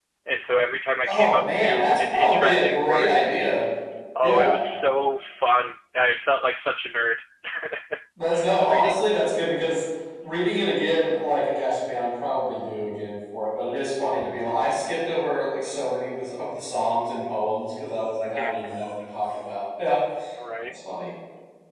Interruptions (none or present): present